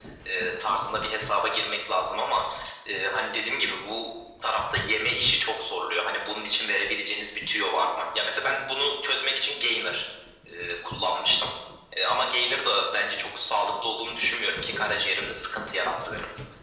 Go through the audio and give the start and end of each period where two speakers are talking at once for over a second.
none

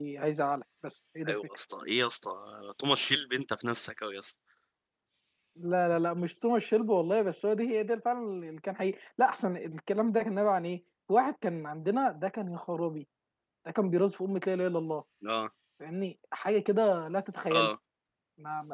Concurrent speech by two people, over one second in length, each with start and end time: none

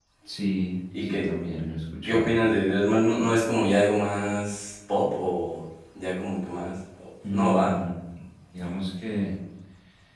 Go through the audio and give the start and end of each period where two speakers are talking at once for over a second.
none

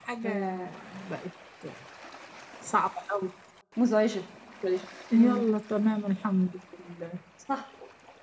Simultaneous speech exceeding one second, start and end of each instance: none

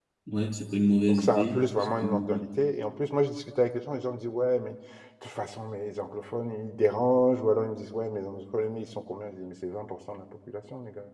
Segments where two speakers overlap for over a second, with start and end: 1.1-2.4

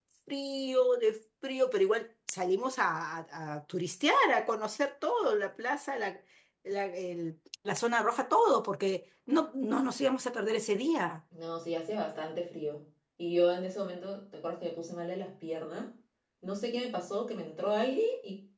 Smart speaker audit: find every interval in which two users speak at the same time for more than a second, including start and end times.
none

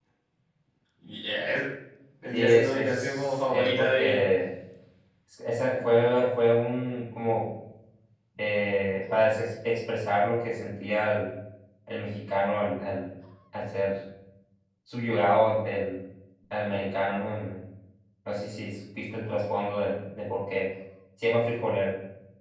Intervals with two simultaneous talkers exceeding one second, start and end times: 2.3-4.2

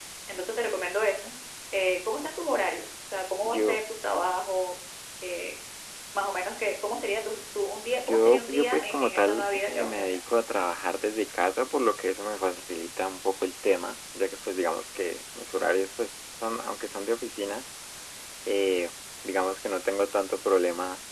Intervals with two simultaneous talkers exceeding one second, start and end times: 8.1-10.2

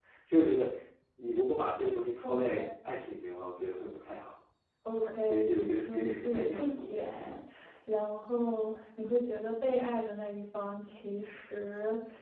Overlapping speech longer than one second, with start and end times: 5.0-7.3

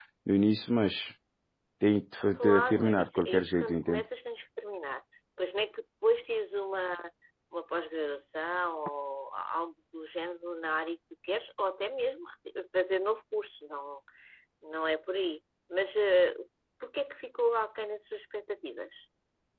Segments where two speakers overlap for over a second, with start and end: 2.4-4.0

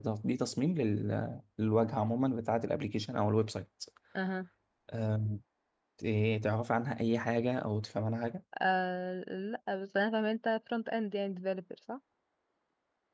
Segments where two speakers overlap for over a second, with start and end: none

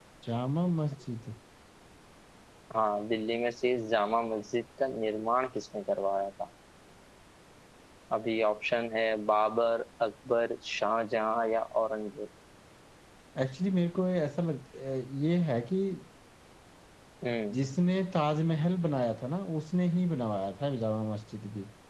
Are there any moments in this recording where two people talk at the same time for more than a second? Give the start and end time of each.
none

